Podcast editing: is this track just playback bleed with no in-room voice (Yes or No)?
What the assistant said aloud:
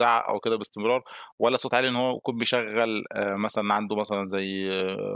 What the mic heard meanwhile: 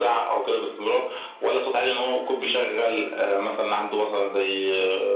Yes